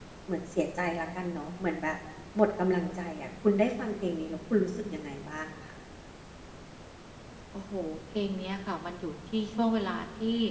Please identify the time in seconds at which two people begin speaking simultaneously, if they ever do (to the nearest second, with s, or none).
none